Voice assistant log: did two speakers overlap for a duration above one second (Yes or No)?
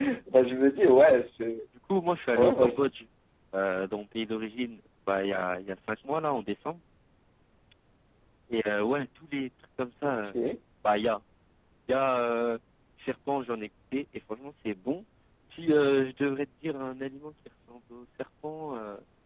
No